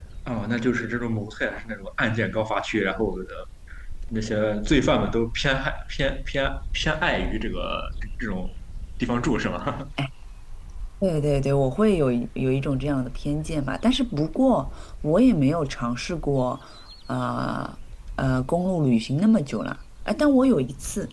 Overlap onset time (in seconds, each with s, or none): none